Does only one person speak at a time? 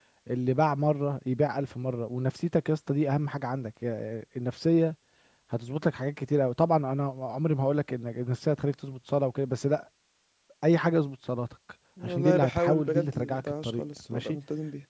No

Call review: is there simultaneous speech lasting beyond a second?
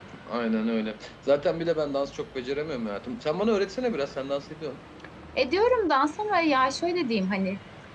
No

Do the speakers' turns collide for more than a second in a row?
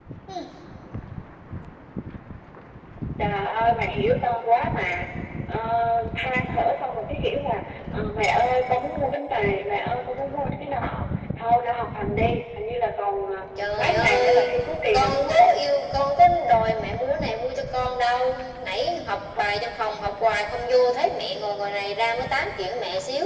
Yes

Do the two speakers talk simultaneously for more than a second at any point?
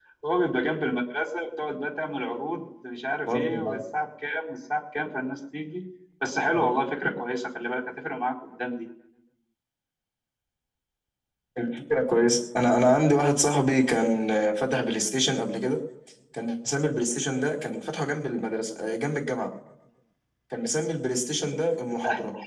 No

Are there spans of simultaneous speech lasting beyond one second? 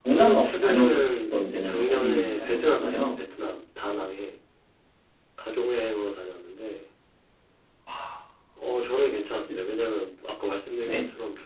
Yes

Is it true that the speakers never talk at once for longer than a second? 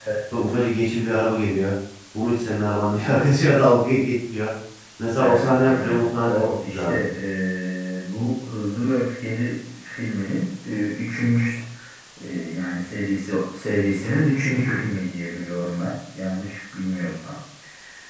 No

